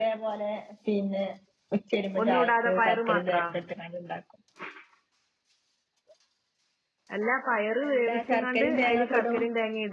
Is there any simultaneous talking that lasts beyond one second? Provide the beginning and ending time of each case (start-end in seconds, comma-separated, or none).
2.2-3.4, 7.9-9.4